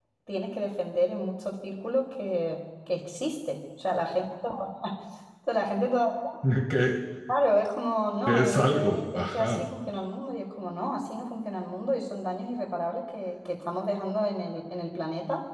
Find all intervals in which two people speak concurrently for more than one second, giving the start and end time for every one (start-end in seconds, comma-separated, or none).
8.3-9.7